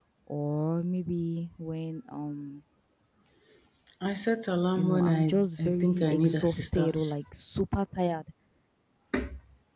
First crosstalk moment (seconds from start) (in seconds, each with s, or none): 4.8 s